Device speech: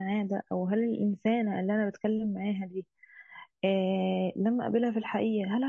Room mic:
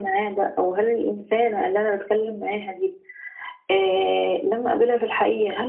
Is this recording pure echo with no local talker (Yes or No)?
Yes